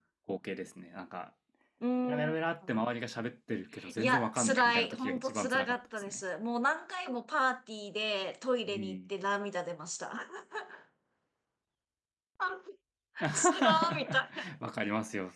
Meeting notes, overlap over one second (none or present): present